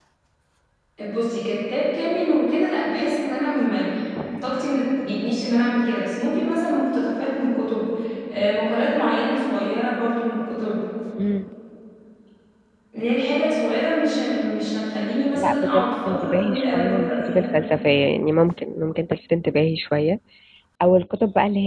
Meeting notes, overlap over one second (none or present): present